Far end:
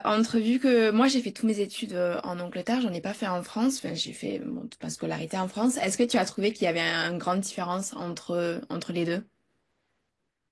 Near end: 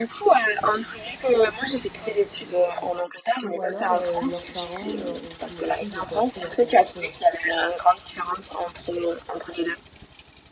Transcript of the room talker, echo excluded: Ou alors, euh, leurs parents leur ont financé l'école scolaire, l'année scolaire,

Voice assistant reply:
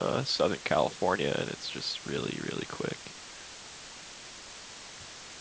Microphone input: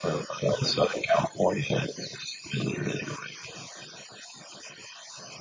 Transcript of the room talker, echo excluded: none

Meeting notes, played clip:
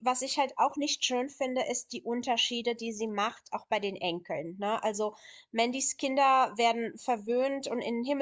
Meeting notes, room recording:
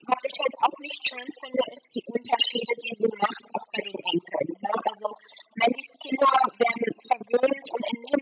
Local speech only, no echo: none

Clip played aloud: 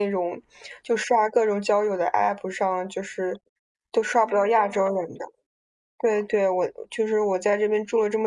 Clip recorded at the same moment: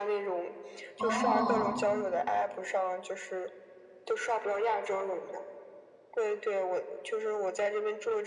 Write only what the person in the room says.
哦，

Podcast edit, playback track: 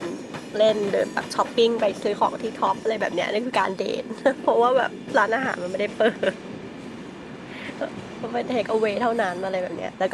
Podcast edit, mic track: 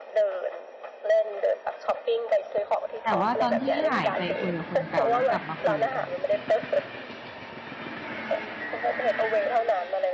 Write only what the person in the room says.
แต่ว่าตอนที่หายไปคุยกับคนเก่าแล้วกลับมาคุยกับคนเนี้ย

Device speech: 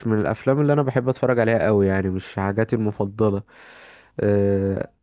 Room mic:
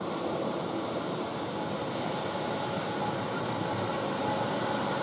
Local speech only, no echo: none

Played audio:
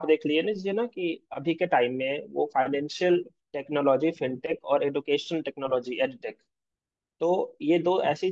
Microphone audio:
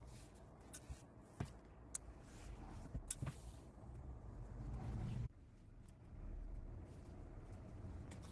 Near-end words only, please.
none

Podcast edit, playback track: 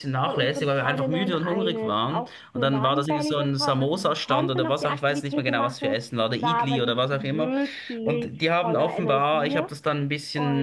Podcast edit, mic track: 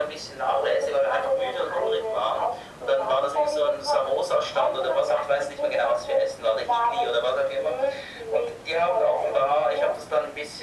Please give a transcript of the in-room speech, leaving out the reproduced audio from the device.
none

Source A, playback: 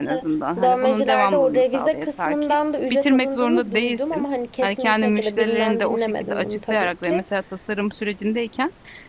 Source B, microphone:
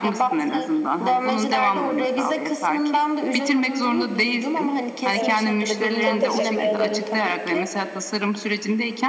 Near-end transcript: Evet. Çok teşekkür ederim.

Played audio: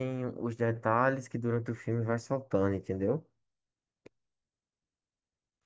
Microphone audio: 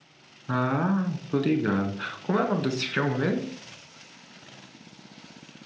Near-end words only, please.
Ah, tô ligado. Como é o nome desse filme mesmo?

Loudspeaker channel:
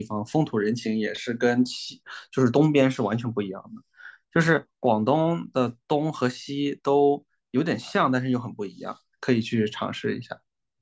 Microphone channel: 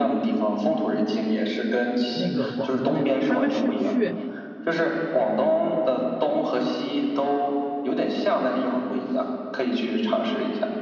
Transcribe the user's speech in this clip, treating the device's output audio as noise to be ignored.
那个广东那边，他们是去，

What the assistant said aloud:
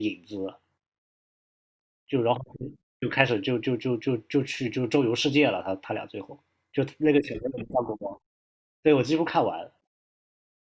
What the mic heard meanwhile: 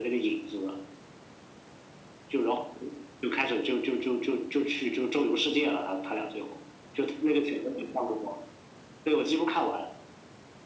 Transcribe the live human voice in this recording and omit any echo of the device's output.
none

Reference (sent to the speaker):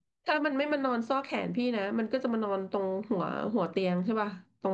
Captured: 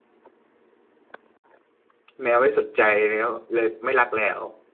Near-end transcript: แมวไม่สนใจแล้วเลยไม่รักแล้ว

